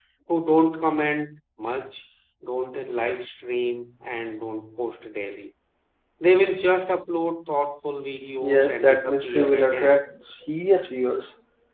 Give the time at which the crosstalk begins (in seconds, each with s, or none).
8.4 s